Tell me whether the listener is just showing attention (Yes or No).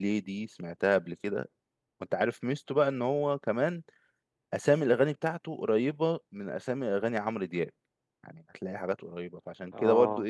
Yes